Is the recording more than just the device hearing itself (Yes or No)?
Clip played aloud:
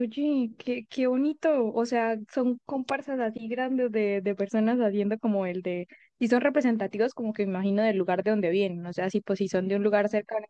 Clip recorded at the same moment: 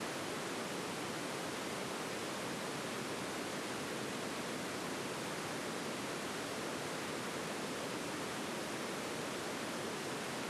No